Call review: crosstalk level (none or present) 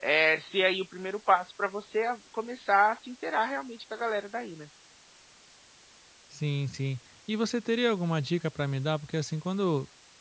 none